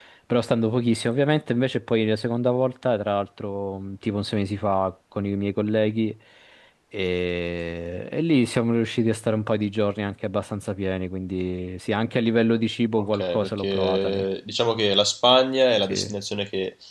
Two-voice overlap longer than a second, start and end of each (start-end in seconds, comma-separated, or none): 12.9-14.2